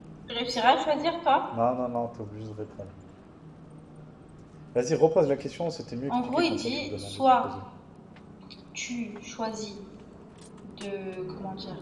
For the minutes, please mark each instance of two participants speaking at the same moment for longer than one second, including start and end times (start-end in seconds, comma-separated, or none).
6.1-7.5